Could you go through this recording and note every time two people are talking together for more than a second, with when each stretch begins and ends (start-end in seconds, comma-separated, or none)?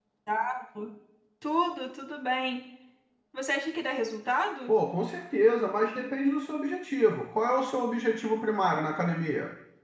none